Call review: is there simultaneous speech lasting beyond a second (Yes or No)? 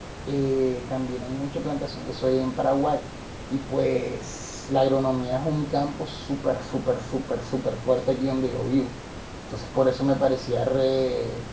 No